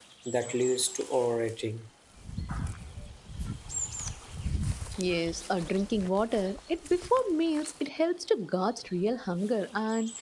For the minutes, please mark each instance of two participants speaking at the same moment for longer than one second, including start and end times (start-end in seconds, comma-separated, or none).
none